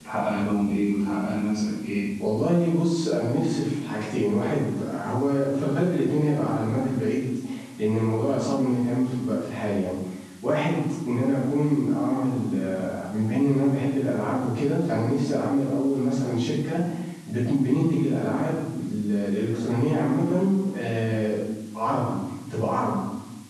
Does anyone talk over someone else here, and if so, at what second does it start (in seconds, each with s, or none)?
none